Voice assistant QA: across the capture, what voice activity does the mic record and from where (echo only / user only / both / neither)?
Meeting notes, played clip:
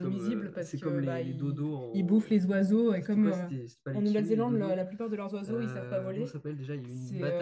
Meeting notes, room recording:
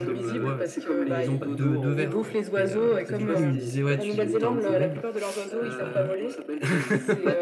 both